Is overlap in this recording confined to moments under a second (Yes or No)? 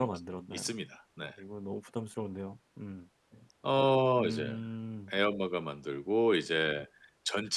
Yes